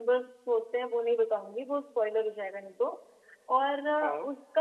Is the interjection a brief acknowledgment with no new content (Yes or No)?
Yes